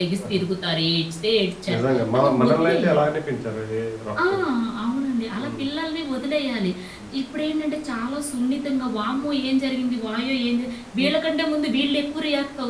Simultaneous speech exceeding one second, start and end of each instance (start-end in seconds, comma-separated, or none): 1.7-3.0